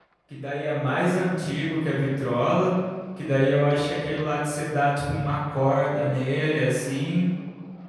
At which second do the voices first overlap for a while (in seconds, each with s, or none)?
none